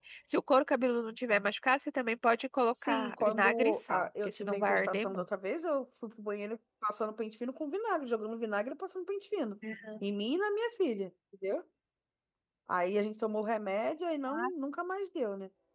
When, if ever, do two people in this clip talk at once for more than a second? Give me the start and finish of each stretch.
2.8-5.2

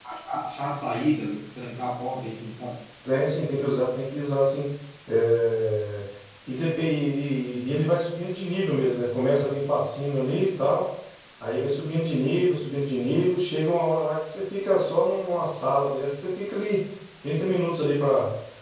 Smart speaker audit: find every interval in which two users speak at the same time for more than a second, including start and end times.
none

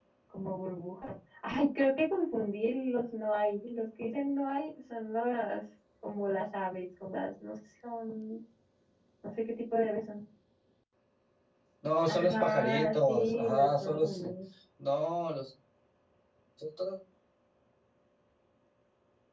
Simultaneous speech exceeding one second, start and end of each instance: 12.0-14.2

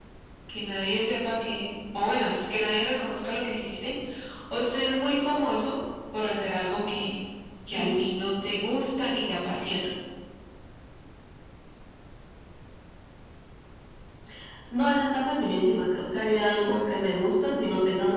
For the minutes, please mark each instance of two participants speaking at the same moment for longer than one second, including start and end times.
none

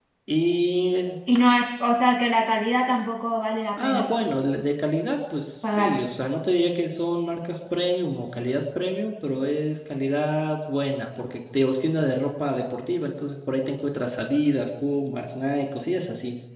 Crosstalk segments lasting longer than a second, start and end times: none

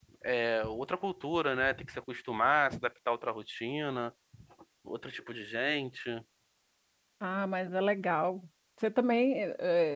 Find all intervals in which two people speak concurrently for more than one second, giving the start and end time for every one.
none

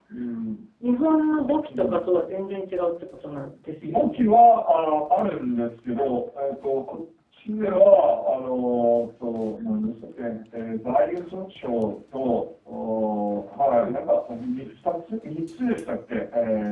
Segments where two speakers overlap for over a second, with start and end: none

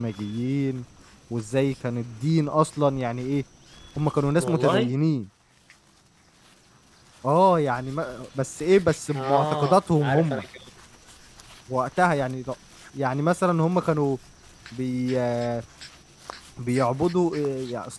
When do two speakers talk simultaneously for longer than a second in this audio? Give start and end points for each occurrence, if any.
9.1-10.4

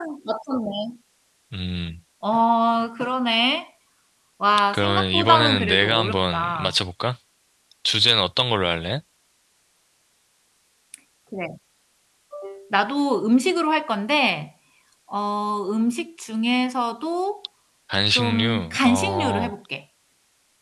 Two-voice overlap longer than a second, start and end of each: 4.7-6.7, 18.2-19.5

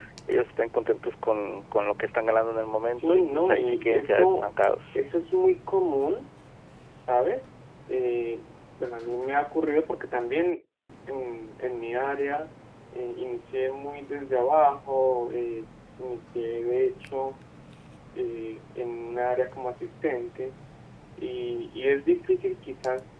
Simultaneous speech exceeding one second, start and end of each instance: 2.9-4.5

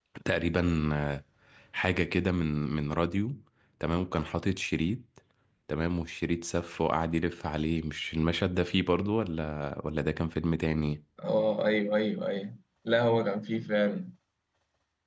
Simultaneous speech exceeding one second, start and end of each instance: none

